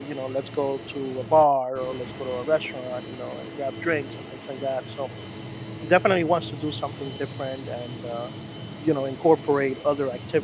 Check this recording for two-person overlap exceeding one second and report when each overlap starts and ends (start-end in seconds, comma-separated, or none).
none